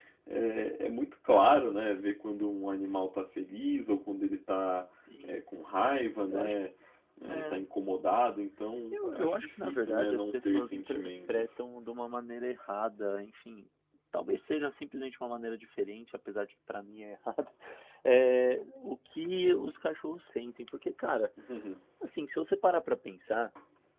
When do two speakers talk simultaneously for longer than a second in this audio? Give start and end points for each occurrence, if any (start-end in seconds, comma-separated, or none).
8.9-11.4